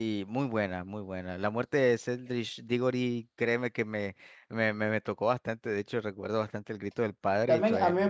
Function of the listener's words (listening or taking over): taking over